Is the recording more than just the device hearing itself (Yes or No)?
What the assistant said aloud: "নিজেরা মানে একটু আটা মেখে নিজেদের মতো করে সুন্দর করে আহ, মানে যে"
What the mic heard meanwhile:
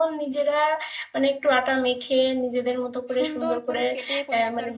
Yes